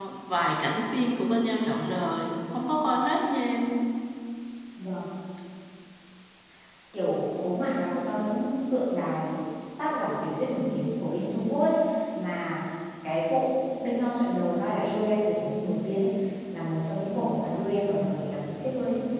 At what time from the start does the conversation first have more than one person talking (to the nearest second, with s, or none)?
none